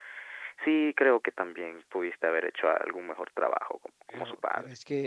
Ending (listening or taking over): taking over